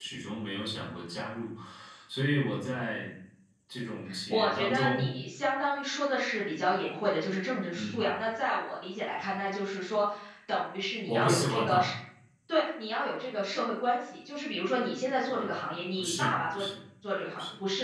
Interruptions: present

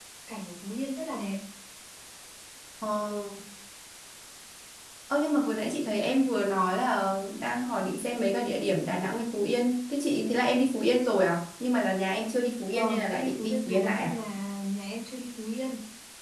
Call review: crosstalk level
present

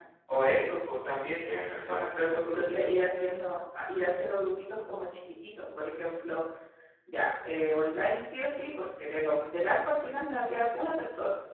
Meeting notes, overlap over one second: none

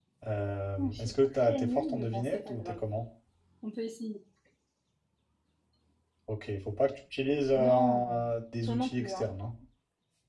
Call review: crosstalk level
present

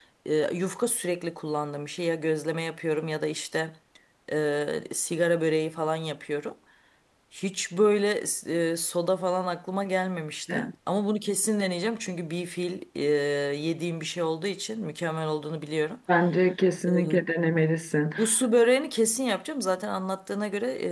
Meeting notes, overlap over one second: none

